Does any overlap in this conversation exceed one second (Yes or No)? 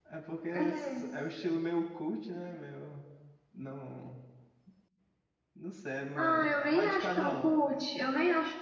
Yes